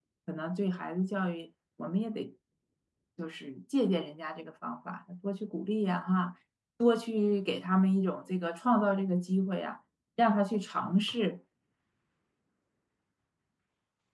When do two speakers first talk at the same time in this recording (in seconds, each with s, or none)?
none